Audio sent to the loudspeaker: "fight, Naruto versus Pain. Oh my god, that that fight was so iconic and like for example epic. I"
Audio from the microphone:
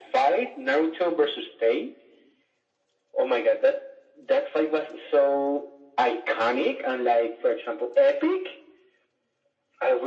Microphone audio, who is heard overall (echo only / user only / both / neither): echo only